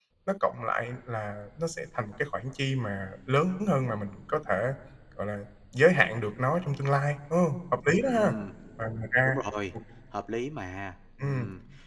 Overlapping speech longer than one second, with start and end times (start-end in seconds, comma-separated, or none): none